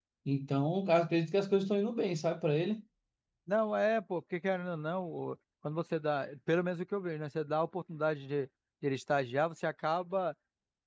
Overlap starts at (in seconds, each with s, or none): none